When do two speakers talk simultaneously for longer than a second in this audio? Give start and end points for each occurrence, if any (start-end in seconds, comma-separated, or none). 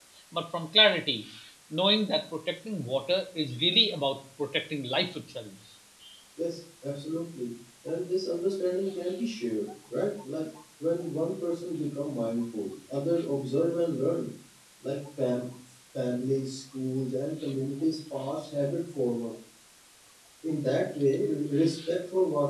none